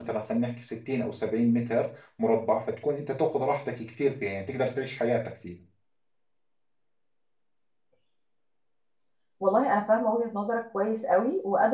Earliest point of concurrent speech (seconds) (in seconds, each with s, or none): none